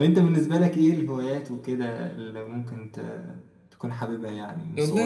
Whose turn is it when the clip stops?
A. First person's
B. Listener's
B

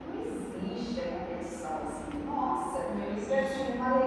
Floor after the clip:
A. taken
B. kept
B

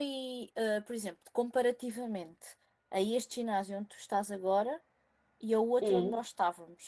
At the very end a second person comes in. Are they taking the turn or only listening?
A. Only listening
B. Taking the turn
A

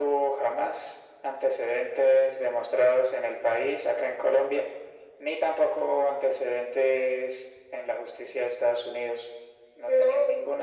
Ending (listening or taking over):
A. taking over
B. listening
B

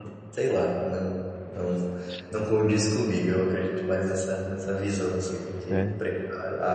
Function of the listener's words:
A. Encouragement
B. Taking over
A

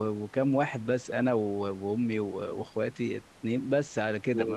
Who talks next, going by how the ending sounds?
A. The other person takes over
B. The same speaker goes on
B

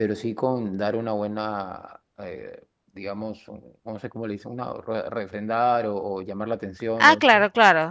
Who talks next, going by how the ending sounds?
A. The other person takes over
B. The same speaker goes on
A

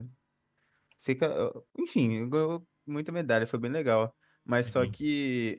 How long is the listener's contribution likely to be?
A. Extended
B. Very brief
B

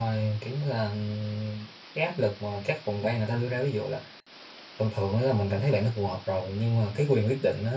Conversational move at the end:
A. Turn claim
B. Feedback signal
B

